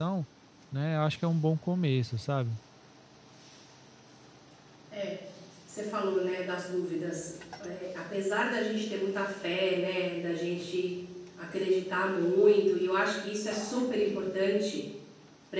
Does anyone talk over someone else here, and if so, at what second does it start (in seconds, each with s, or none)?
none